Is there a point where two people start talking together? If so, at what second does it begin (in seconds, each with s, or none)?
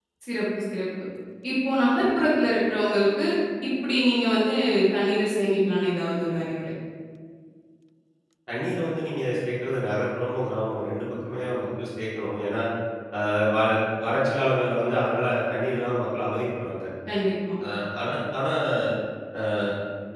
none